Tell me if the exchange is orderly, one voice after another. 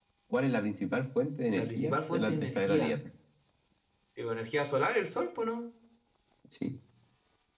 No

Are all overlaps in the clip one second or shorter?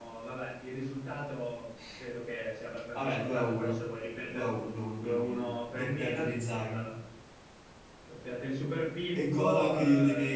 No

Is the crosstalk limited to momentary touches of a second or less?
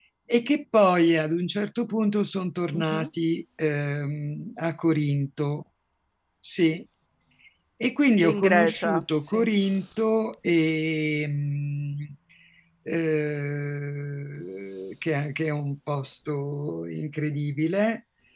No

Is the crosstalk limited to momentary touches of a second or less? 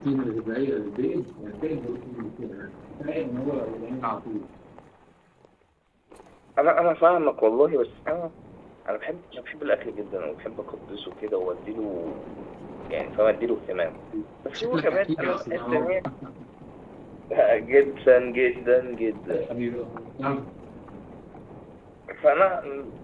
No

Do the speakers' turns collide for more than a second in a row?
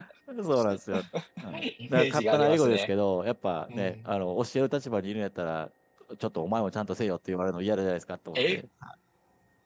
Yes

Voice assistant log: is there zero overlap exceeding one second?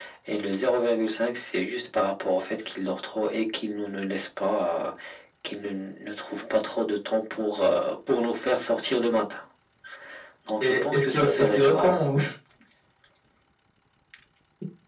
No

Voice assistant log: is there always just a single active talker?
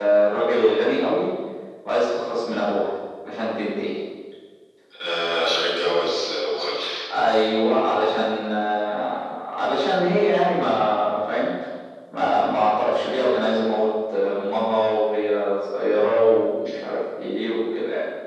Yes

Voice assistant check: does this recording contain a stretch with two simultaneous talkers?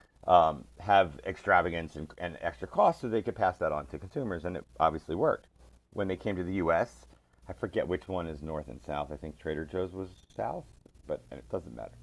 No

